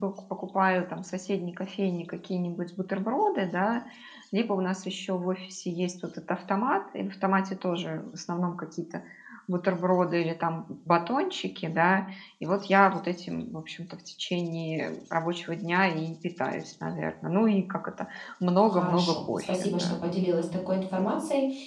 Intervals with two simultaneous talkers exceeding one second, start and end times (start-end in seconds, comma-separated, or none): 18.6-19.9